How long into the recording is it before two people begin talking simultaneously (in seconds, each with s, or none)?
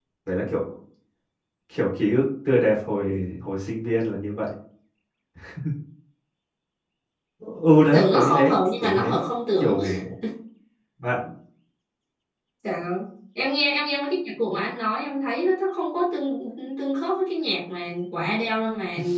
7.9 s